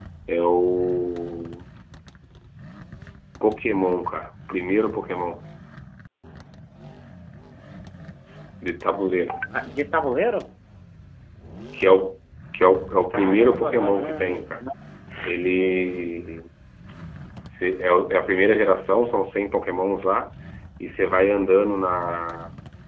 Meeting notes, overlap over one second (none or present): present